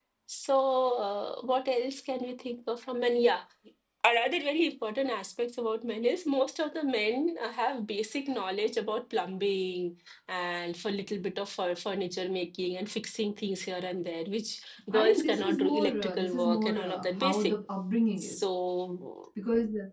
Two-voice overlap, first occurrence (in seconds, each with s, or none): 14.9 s